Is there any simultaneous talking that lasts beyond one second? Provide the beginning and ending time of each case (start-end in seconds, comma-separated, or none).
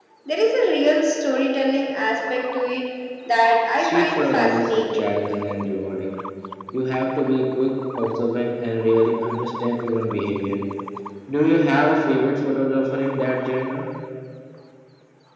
3.8-5.2